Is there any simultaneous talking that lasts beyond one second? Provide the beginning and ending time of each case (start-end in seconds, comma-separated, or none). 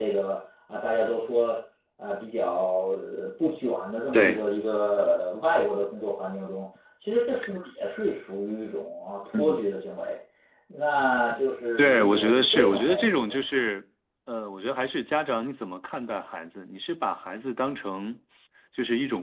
11.8-13.7